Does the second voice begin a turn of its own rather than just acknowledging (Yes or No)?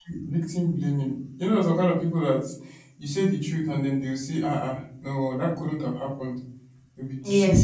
Yes